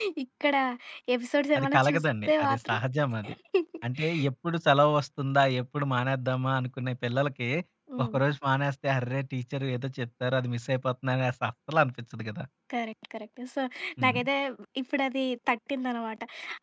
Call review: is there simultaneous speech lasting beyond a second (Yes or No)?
Yes